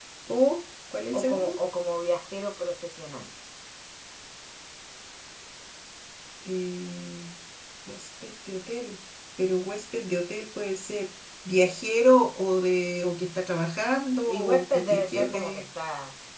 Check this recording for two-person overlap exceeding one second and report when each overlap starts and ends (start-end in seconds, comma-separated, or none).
14.3-15.6